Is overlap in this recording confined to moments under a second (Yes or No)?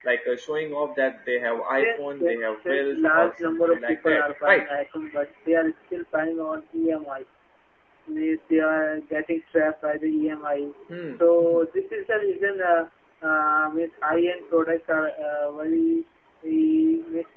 No